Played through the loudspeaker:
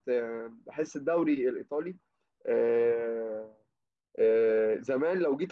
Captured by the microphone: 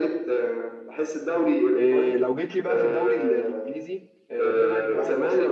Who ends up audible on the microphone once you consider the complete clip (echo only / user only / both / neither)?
both